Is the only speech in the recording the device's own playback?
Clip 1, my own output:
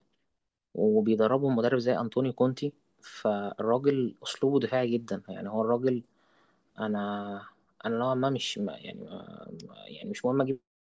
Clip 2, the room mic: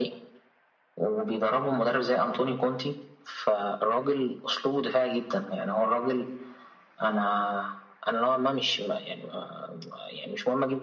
Yes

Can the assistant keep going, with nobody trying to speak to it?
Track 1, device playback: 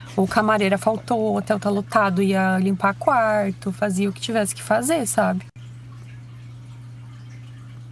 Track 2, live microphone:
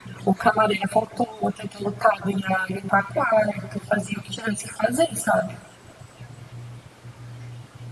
Yes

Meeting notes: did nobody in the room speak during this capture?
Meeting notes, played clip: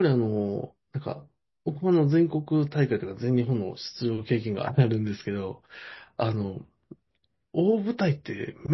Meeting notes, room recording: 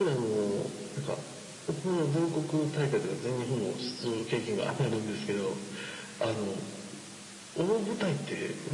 Yes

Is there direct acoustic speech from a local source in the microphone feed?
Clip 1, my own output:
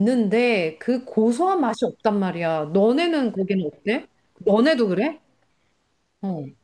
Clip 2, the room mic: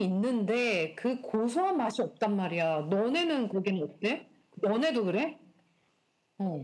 No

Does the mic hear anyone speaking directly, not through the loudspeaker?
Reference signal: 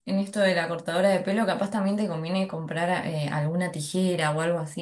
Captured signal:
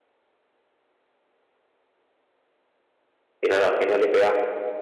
Yes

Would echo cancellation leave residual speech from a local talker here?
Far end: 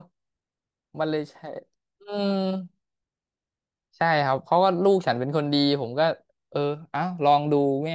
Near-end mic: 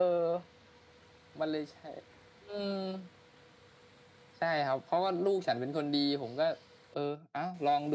No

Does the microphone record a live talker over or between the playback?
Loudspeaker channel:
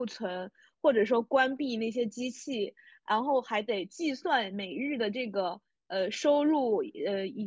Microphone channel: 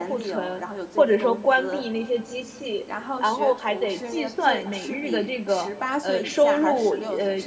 Yes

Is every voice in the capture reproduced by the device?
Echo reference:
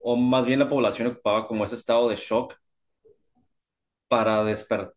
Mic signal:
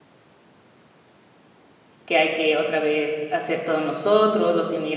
No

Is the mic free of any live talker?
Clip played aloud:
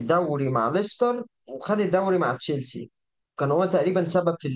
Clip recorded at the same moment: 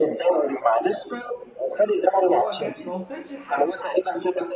No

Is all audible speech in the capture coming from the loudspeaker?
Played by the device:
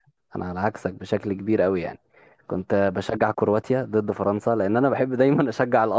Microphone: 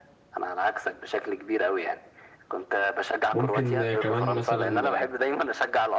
No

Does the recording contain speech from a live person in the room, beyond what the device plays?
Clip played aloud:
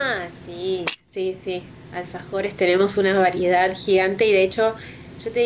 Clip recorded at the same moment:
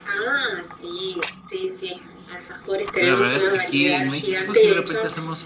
Yes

